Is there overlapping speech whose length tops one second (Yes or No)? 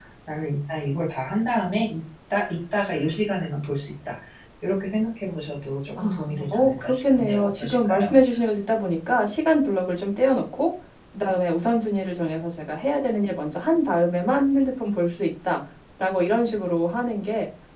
Yes